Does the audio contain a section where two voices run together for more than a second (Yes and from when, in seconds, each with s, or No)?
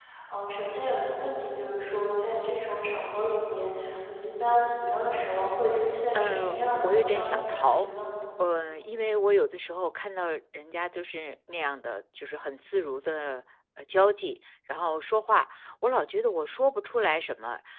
Yes, from 6.1 s